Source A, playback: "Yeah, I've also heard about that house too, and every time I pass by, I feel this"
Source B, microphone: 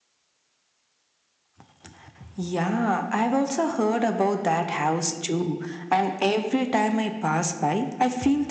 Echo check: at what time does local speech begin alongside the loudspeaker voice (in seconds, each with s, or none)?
none